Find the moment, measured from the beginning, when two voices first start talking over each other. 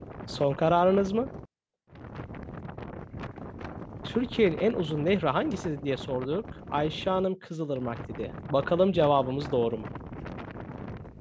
none

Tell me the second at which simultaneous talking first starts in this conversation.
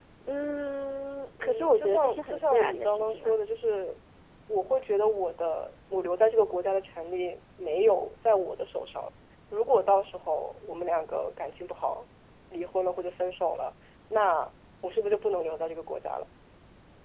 1 s

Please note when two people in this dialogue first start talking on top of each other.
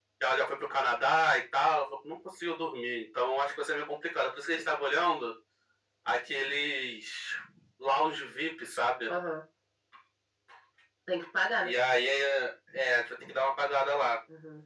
none

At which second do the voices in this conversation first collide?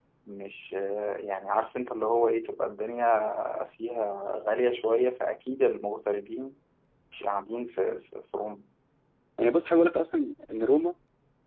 none

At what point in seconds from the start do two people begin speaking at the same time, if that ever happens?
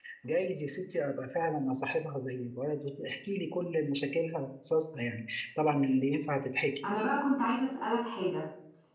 none

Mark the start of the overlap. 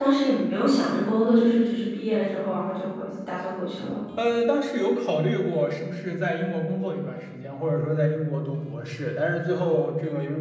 none

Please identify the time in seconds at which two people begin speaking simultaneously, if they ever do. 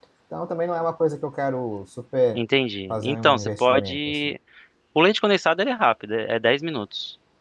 3 s

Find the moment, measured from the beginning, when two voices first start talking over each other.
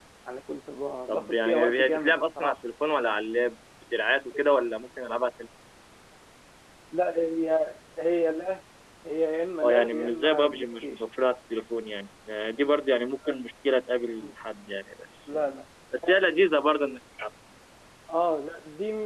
1 s

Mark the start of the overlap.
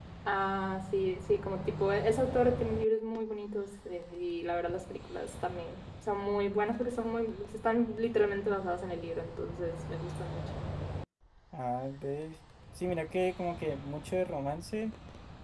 none

